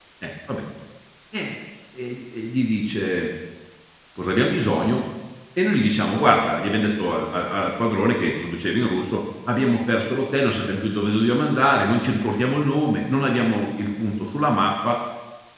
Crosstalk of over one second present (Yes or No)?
No